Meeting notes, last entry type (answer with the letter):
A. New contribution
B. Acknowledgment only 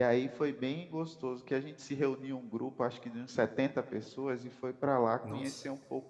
B